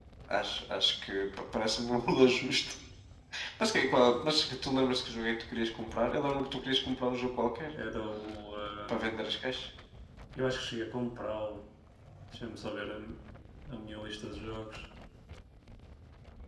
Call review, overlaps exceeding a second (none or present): none